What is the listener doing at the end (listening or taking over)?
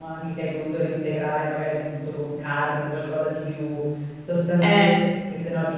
listening